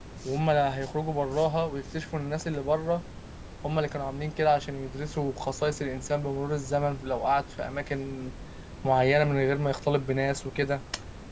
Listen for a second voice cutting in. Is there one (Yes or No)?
No